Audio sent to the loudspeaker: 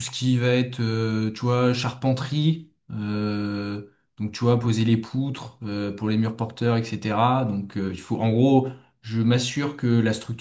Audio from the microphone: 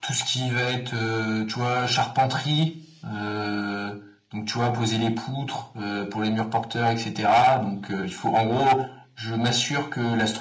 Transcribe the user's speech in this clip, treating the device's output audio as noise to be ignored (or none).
none